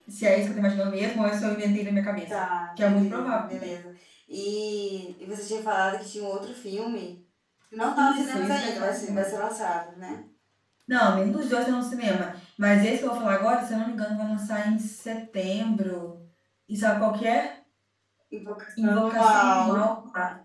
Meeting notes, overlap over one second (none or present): present